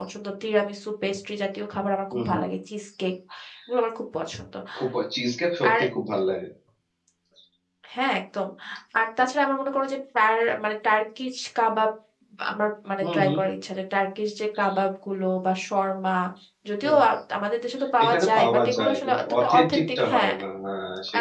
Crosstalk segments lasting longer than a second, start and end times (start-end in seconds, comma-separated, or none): 18.0-20.3